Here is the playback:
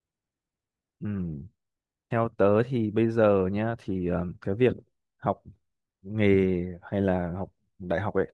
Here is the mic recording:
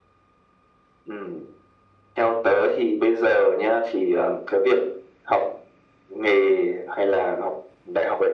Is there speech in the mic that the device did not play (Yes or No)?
No